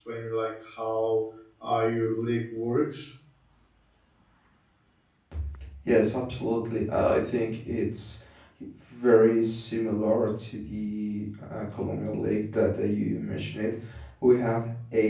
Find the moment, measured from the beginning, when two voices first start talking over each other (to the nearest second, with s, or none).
none